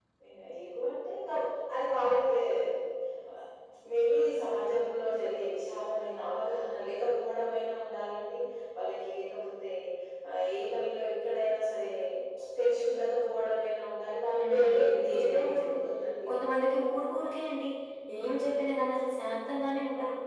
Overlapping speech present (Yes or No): Yes